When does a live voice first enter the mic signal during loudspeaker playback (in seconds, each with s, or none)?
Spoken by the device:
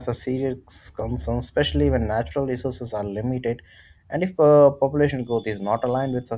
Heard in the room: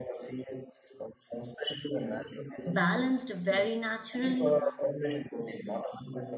2.7 s